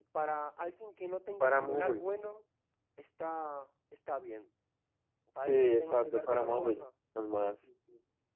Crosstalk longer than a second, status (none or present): present